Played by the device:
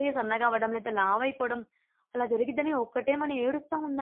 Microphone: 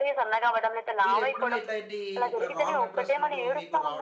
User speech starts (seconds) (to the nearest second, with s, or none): 1 s